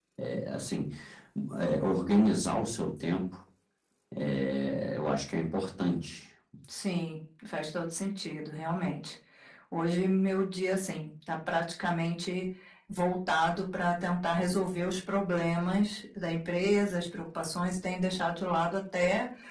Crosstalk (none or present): none